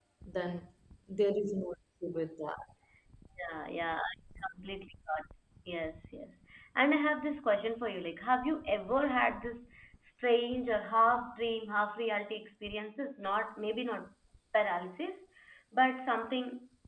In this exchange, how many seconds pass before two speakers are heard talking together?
none

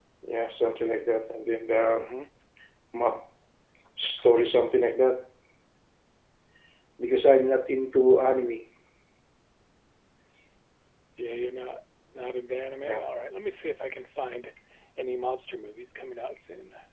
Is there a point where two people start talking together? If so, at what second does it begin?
none

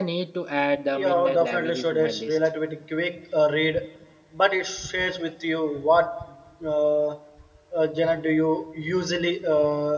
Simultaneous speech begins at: 0.9 s

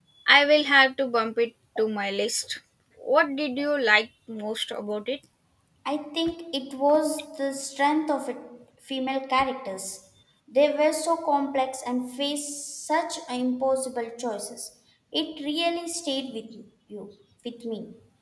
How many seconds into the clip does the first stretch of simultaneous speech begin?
none

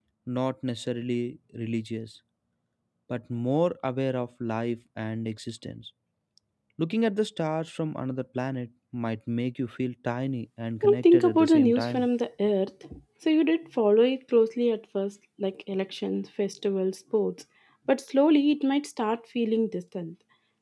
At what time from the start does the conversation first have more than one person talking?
10.8 s

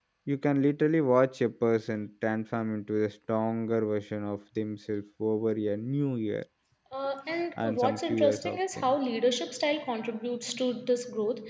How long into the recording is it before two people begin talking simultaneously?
7.6 s

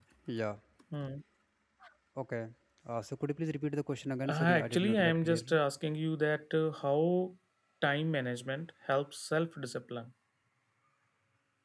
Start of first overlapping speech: 4.2 s

